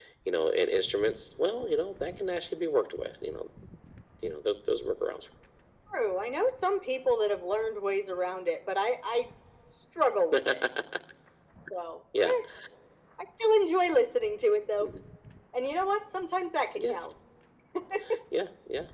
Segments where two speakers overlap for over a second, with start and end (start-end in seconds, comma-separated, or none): none